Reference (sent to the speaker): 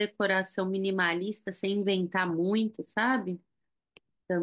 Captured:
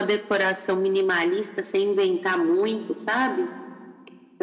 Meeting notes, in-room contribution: none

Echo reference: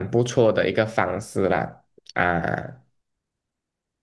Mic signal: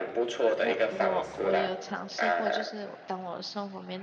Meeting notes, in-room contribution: present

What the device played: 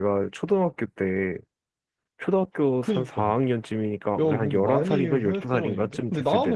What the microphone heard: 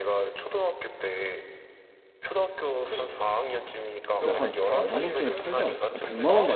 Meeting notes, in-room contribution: present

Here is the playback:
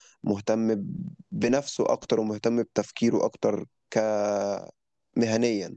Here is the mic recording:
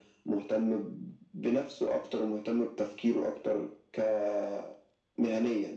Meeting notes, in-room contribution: none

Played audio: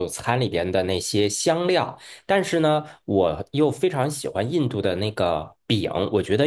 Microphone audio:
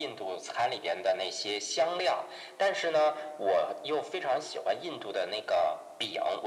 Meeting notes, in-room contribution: none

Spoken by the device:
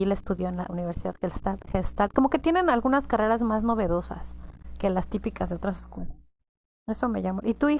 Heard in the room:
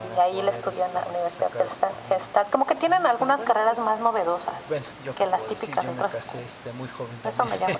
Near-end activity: present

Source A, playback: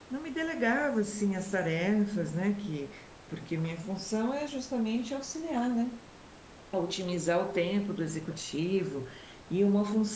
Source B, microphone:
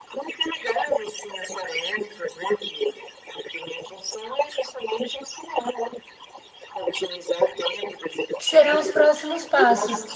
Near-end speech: present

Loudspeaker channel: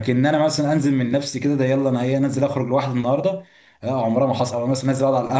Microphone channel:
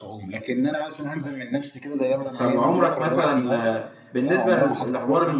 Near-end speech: present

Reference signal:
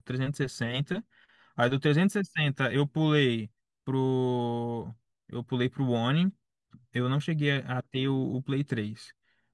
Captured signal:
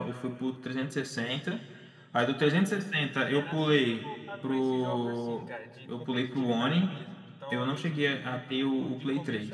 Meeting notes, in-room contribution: present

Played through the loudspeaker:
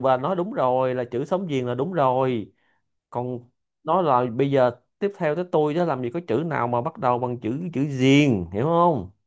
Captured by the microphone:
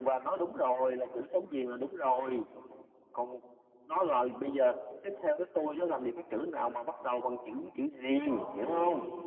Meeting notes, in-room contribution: present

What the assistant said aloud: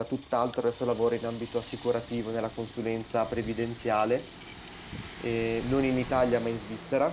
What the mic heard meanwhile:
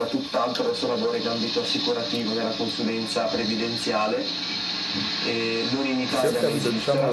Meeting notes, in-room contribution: present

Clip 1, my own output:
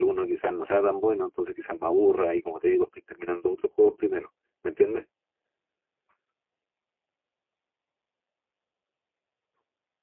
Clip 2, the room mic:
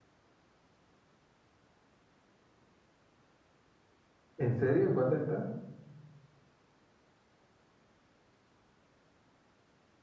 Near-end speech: present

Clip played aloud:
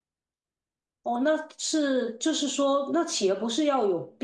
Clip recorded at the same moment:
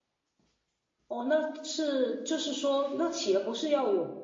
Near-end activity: none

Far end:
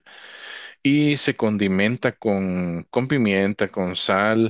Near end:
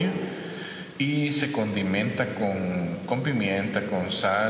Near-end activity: none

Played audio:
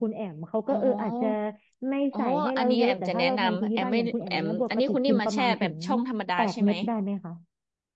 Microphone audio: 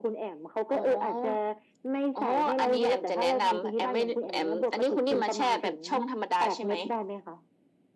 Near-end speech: none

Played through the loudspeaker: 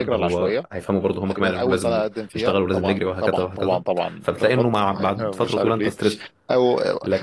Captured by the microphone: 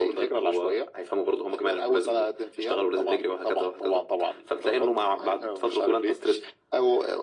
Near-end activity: none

